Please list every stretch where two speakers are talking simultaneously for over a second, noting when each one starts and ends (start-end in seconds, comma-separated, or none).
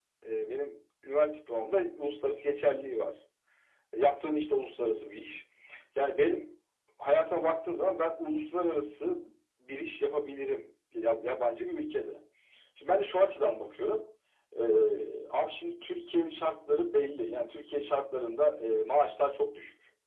none